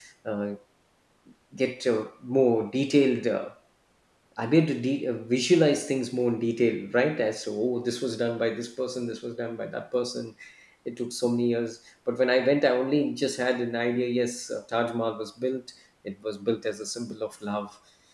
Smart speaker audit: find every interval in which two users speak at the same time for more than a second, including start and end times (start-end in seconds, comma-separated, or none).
none